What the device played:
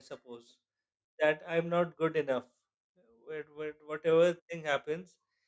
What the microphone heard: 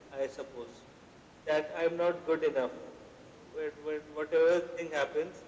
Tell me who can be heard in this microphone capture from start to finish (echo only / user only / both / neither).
echo only